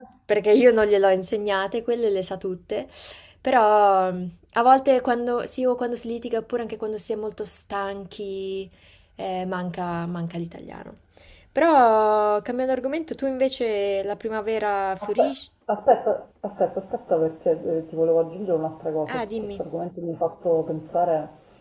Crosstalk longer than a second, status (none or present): none